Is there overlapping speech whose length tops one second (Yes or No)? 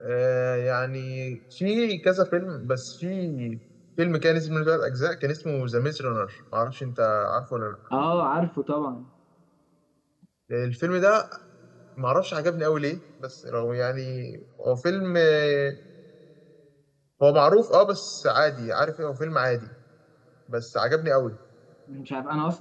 No